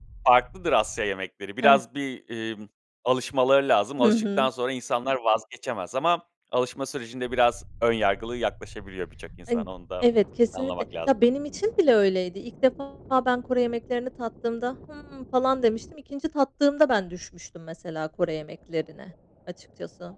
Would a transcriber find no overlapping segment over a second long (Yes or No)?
Yes